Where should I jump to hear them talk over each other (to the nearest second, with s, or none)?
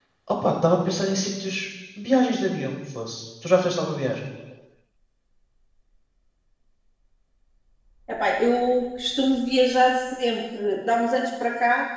none